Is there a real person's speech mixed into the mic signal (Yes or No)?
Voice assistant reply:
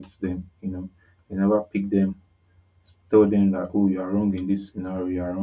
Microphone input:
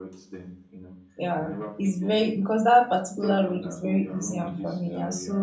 Yes